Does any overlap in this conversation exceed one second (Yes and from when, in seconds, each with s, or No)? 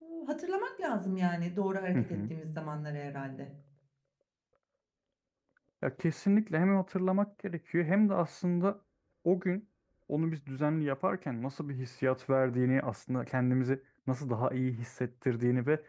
No